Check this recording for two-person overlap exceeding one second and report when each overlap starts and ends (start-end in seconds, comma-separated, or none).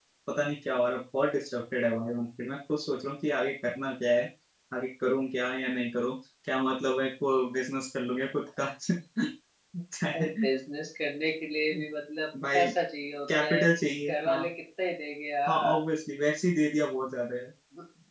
none